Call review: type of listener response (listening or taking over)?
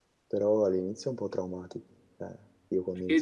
listening